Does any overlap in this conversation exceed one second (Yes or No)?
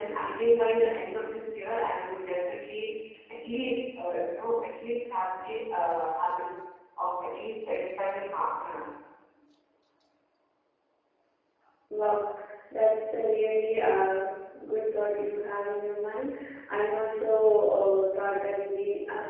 No